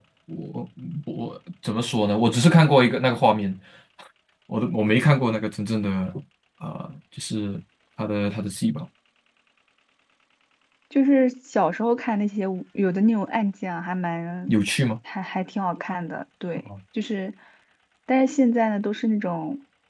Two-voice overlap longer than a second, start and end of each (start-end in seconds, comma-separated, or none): none